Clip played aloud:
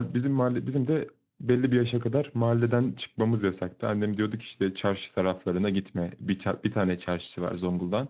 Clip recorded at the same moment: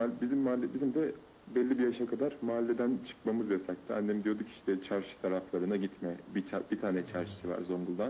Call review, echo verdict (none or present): present